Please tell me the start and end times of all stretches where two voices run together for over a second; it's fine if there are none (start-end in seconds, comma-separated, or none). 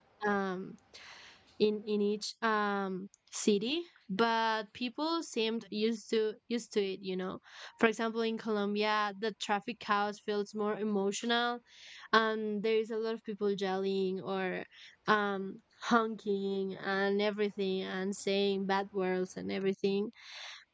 none